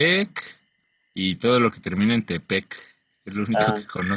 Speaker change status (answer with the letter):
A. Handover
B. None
A